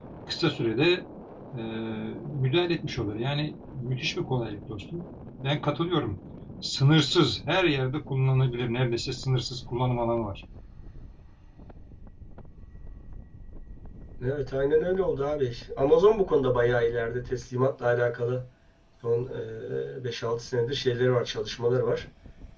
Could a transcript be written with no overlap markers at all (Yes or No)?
Yes